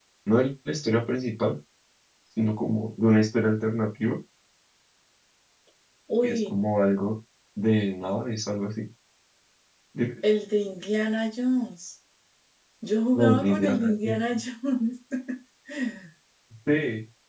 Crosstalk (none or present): present